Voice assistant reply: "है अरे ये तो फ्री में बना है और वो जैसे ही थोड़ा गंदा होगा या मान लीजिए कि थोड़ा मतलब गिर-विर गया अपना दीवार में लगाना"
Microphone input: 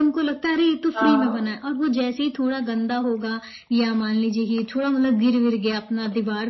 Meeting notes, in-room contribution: present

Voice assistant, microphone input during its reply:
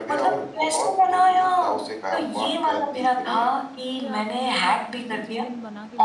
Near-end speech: present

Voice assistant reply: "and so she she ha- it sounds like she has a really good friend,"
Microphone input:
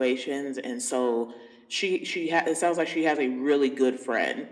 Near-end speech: none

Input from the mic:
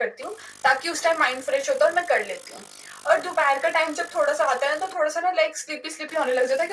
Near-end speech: none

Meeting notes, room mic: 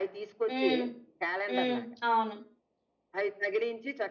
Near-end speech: present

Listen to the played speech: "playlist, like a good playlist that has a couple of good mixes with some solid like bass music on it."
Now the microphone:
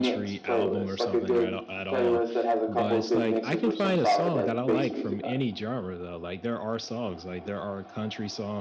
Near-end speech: present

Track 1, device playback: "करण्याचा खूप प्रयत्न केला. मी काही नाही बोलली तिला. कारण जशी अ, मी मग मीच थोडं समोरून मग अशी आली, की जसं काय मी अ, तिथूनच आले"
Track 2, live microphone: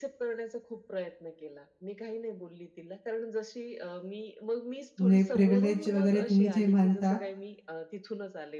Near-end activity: present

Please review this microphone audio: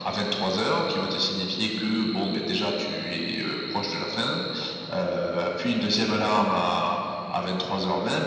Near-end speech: none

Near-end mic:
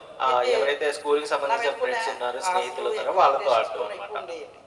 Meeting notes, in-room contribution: none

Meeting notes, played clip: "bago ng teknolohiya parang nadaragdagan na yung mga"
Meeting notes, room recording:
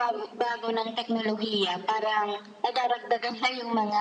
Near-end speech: none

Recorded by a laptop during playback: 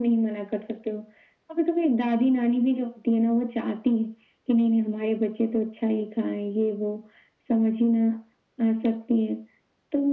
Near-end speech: none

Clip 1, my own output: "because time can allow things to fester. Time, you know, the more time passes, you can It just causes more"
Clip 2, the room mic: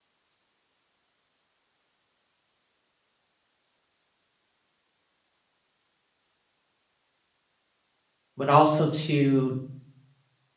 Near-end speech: present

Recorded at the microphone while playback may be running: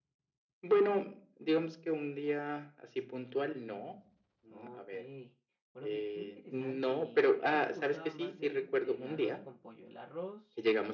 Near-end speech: present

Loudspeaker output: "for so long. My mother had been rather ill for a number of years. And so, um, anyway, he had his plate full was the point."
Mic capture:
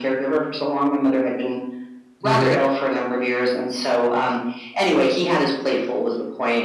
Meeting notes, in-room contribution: present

